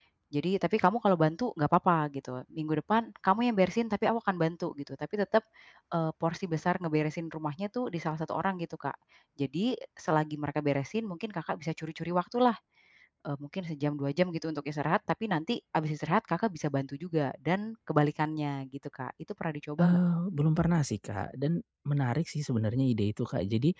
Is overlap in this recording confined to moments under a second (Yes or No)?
Yes